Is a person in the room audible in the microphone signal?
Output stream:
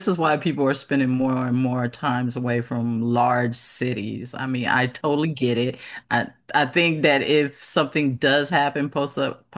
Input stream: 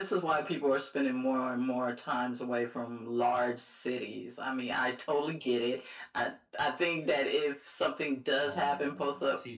Yes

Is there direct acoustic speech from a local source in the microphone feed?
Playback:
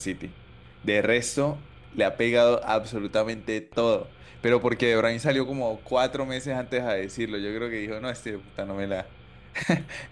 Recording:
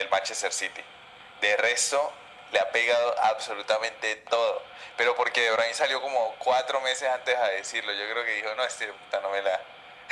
No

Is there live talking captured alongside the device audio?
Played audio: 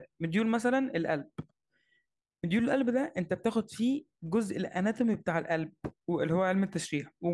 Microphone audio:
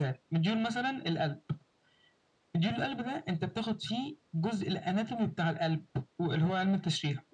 No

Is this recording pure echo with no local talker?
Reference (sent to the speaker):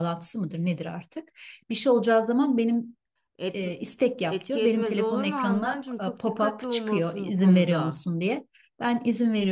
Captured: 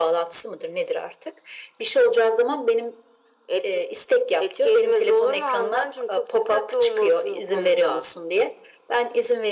Yes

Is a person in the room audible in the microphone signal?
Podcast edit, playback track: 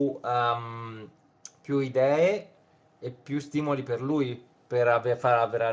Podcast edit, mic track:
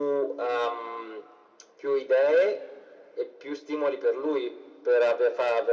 No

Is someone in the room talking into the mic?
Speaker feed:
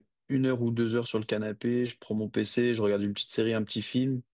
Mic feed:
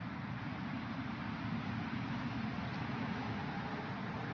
No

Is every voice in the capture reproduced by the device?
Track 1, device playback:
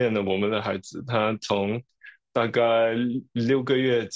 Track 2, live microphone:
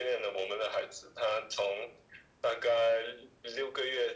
Yes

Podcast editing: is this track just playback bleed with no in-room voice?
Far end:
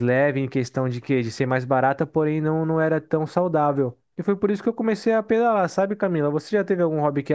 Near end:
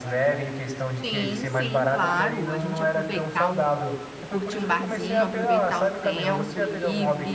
No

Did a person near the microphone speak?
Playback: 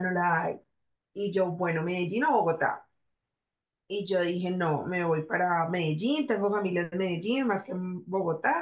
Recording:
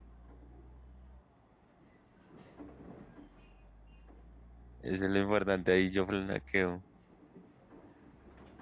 Yes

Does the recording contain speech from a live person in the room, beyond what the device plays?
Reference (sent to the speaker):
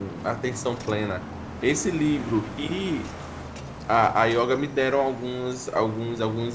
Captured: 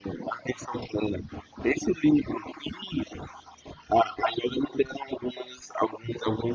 No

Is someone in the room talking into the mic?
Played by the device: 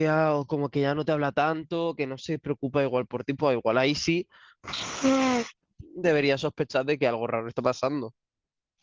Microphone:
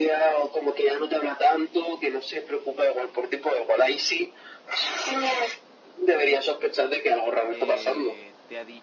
Yes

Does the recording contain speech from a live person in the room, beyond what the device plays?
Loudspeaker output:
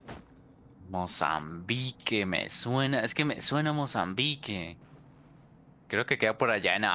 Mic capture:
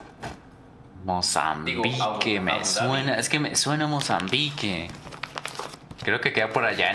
Yes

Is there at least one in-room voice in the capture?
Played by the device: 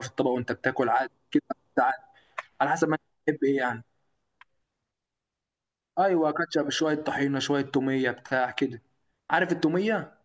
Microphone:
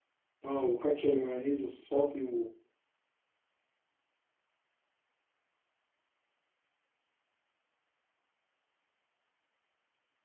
Yes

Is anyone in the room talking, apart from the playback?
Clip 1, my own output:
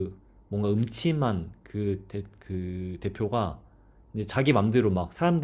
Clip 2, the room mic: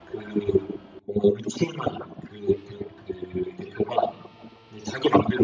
No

